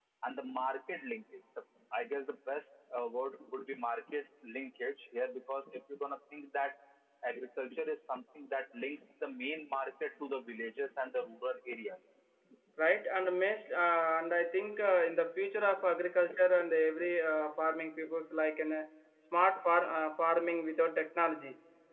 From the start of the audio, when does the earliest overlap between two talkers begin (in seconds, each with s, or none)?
none